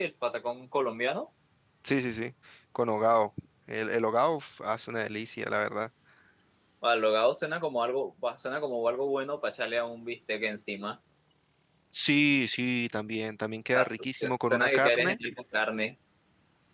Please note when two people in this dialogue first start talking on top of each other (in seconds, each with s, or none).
13.7 s